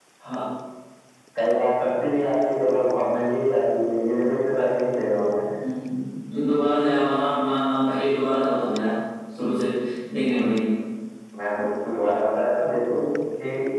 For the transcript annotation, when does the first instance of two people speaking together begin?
none

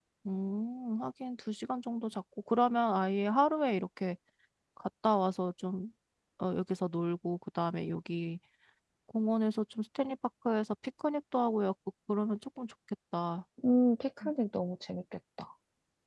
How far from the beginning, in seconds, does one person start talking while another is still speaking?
none

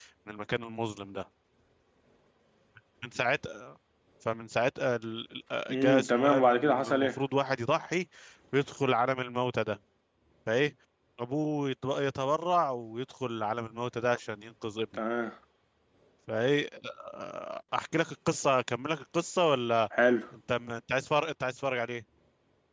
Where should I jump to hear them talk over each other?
5.7 s

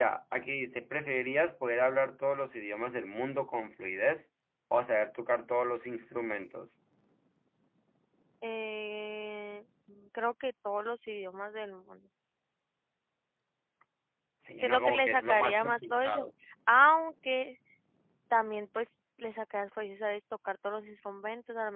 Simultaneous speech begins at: 14.6 s

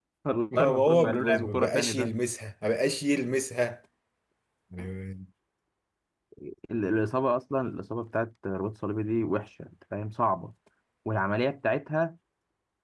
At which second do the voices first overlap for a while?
0.6 s

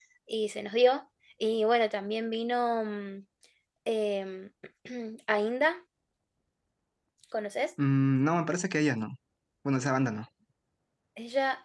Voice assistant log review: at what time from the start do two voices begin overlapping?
none

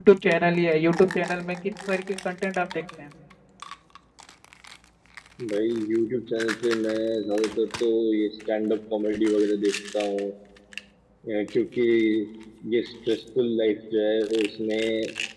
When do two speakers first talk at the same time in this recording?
none

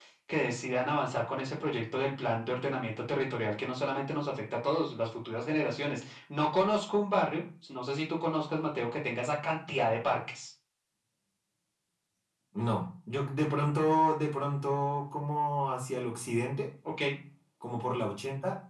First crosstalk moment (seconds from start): none

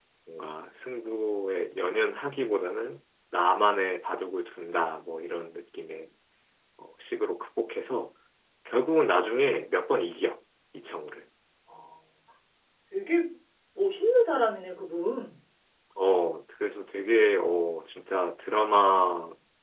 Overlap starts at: none

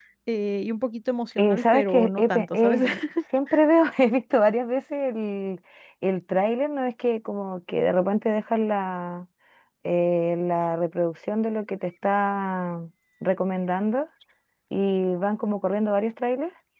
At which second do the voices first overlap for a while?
1.4 s

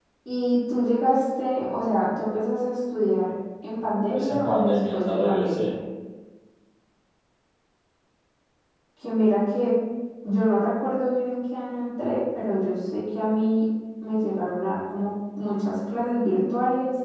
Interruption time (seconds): 4.1 s

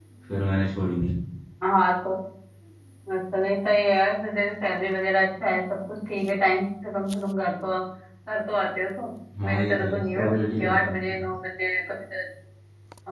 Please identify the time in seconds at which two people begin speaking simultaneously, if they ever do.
9.3 s

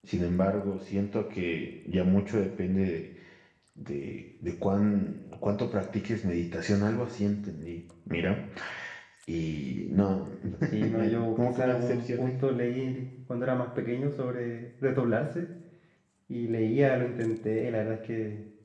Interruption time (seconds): 10.9 s

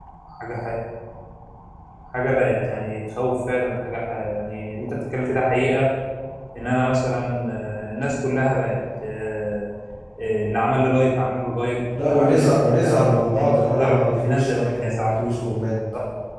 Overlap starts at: 11.9 s

